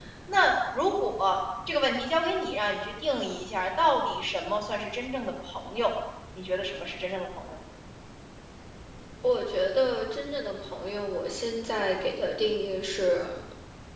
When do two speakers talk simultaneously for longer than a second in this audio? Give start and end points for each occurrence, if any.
none

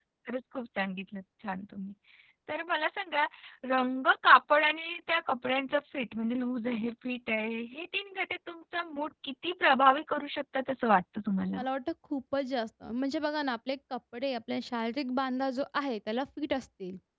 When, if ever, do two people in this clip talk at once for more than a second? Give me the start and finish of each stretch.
none

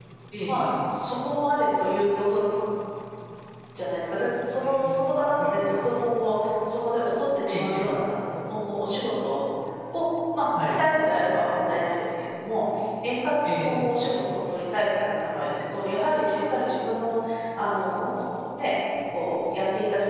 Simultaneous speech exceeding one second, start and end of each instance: 4.6-6.0

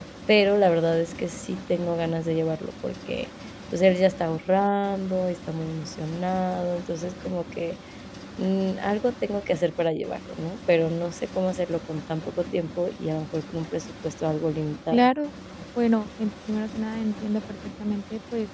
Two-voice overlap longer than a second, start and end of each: none

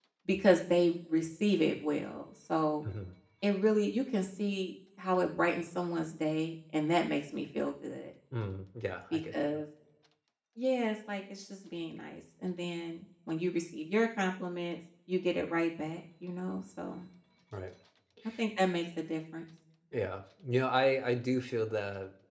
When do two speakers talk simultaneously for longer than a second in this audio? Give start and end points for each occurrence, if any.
none

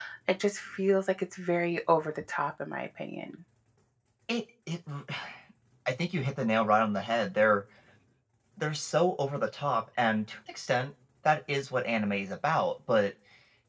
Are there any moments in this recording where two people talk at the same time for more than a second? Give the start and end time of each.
none

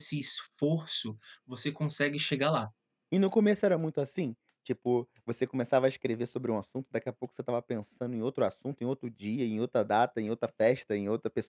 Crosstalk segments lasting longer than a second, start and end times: none

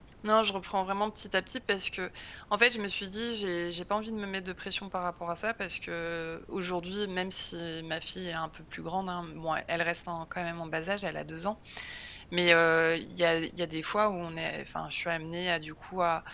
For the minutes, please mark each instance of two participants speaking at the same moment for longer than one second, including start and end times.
none

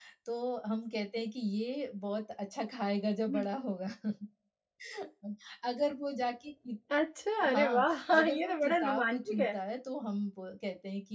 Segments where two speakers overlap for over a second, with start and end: 7.5-9.6

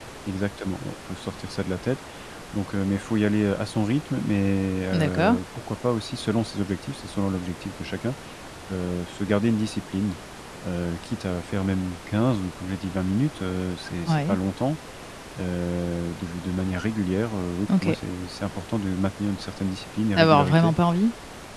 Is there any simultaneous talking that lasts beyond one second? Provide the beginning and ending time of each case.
none

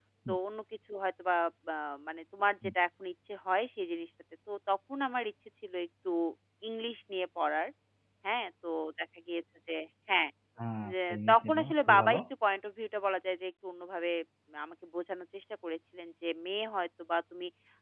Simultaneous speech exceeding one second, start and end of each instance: 10.9-12.2

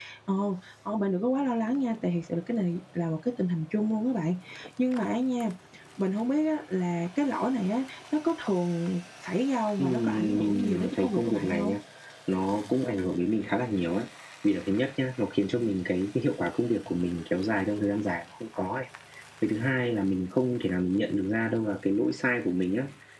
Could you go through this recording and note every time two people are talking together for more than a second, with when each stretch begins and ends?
9.8-11.8

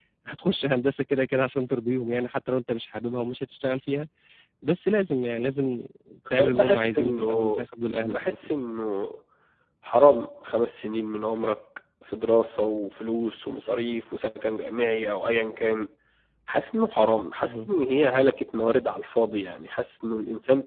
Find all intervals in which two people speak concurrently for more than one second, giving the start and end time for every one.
6.3-7.6

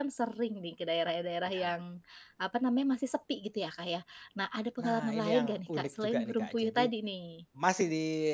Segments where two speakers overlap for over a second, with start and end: 4.8-6.9

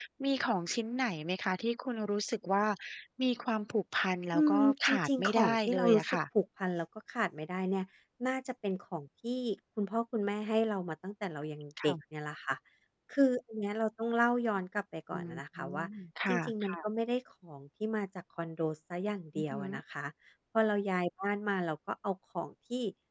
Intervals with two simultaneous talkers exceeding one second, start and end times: 4.3-6.2

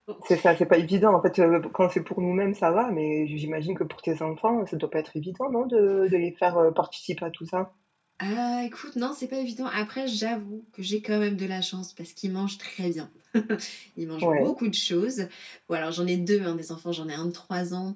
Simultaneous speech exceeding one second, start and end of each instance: none

